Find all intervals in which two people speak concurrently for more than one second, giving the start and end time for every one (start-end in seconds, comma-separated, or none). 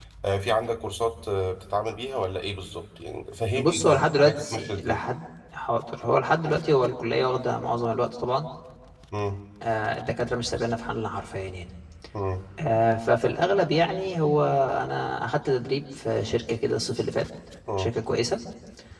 3.5-5.0